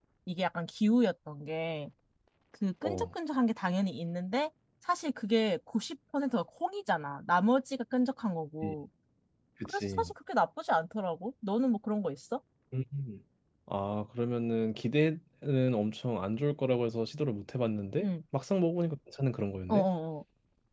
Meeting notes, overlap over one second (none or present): none